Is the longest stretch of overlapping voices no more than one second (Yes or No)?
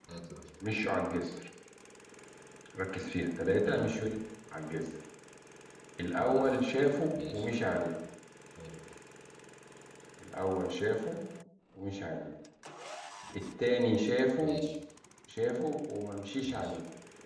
Yes